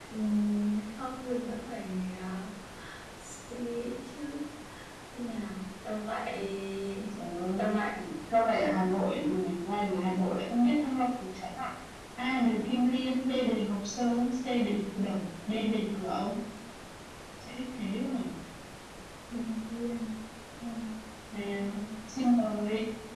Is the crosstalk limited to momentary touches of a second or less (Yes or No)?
Yes